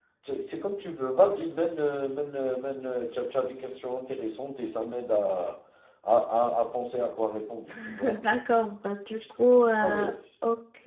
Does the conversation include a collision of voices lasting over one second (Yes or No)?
No